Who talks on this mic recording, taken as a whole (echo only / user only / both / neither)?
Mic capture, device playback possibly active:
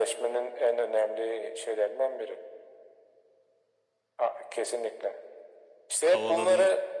both